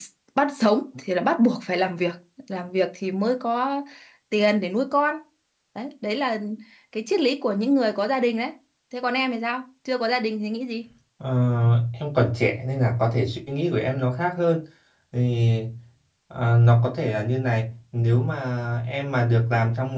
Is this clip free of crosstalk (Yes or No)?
Yes